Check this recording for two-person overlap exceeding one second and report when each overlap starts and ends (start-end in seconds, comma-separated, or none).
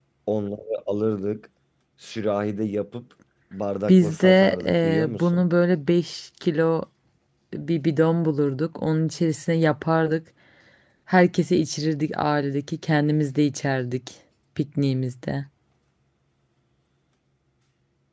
3.9-5.4